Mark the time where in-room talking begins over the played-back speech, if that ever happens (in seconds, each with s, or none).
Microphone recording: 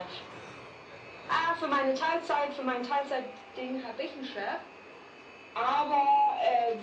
none